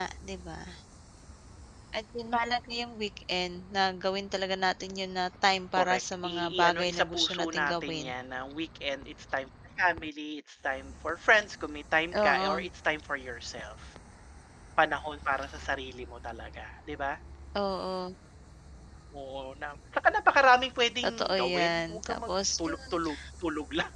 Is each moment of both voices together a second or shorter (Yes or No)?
No